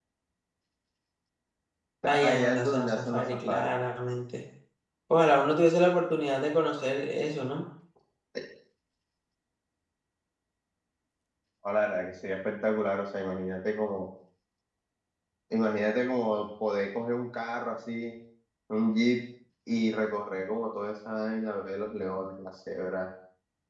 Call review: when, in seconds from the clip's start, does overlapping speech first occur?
2.1 s

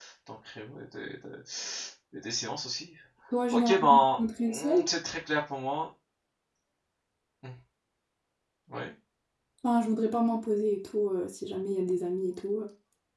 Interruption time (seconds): 3.5 s

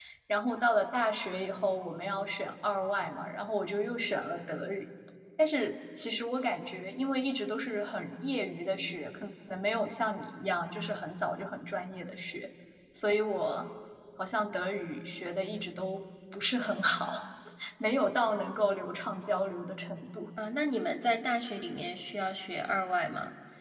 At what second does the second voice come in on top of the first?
none

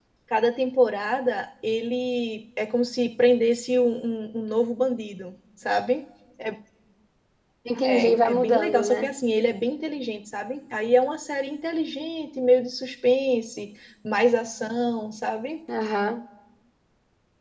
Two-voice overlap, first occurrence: 7.8 s

